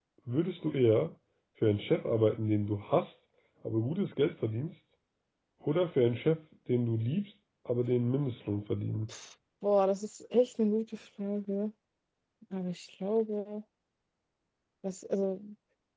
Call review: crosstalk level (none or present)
none